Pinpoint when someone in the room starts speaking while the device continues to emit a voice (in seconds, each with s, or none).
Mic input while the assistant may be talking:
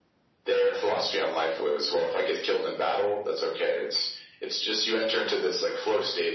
none